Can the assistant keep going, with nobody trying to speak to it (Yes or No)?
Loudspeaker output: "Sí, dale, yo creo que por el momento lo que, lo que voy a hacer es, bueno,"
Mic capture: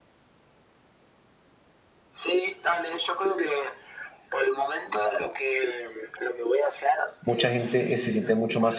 No